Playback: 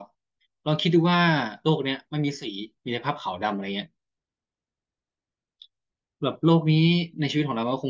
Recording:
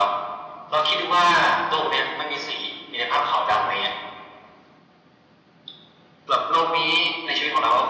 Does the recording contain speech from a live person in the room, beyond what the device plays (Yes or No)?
No